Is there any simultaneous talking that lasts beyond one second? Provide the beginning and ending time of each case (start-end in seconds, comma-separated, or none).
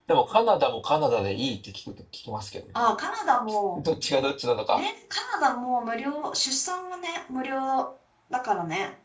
none